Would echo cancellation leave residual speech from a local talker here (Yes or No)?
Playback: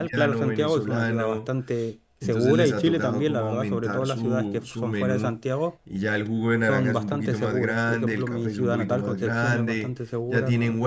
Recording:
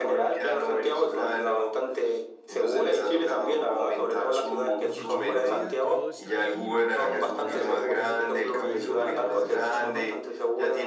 Yes